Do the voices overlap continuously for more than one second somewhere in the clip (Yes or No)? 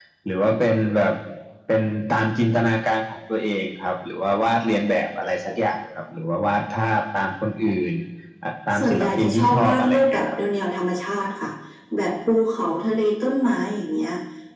Yes